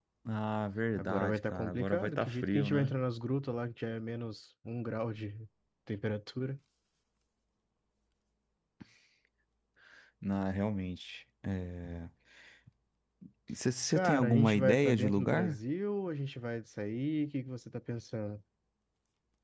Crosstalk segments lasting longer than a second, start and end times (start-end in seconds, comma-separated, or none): 1.0-3.0, 13.9-15.6